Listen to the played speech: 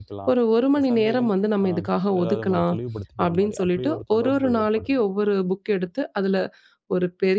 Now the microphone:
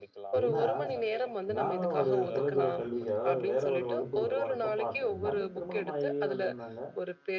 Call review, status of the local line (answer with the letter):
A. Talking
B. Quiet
A